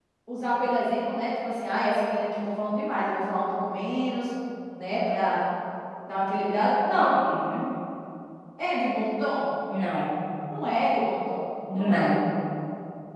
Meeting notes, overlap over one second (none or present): none